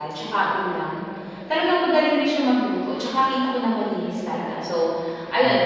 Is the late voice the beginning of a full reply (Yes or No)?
No